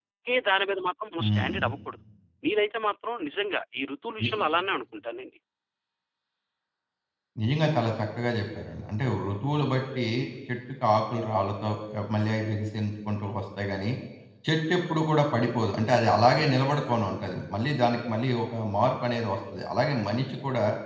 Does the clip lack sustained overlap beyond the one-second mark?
Yes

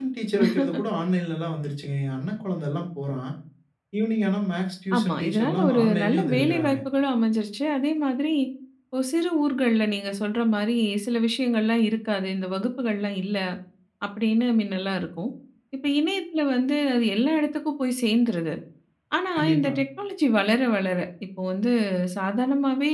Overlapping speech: Yes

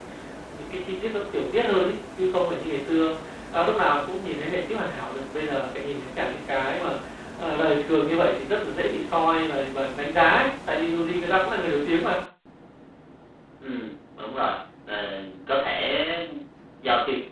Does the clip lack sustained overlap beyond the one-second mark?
Yes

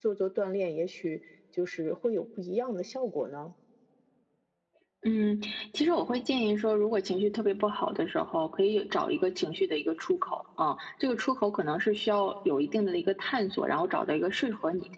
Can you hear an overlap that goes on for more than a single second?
No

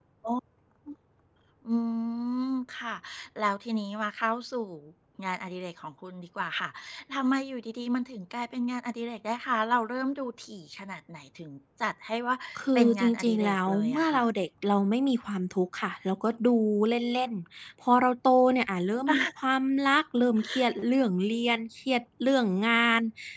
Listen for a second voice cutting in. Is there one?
Yes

